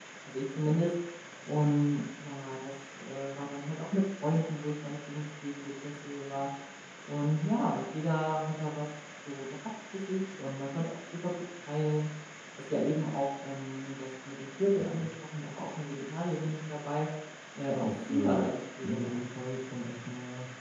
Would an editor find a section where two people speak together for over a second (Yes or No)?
Yes